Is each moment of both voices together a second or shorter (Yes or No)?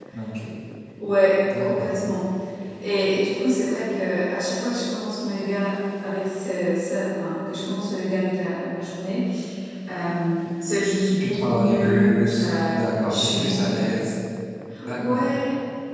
No